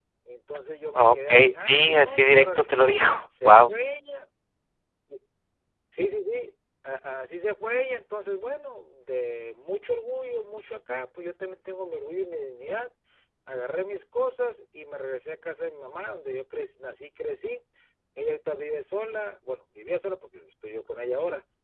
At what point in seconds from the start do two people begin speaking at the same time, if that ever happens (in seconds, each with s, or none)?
0.9 s